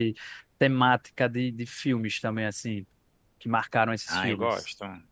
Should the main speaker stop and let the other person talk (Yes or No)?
Yes